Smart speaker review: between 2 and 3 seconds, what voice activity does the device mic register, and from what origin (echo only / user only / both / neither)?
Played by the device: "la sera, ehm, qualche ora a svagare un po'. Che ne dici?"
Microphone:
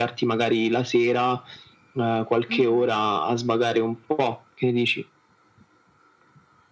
both